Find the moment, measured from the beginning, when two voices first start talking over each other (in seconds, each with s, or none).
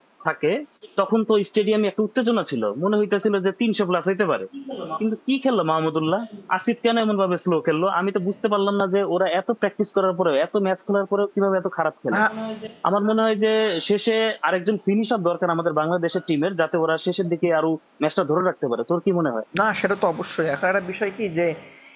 none